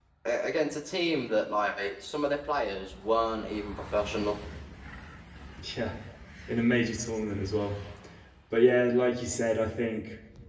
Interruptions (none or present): none